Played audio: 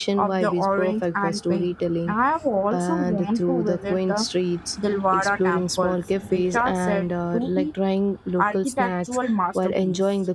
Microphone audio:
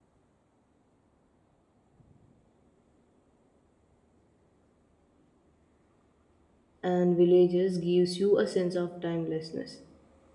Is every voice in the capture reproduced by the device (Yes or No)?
No